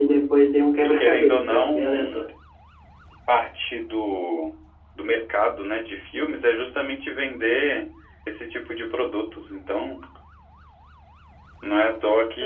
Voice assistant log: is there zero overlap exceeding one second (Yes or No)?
No